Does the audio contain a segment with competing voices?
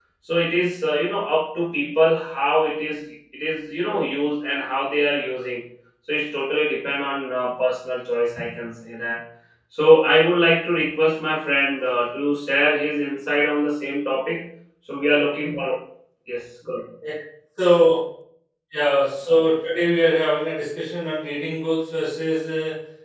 No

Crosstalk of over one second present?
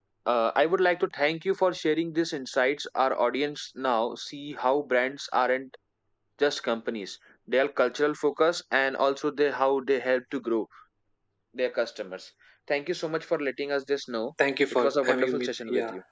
Yes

